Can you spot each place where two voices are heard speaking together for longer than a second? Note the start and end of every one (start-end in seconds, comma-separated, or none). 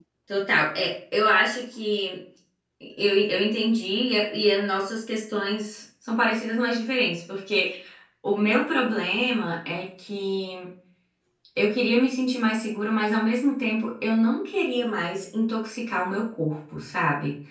none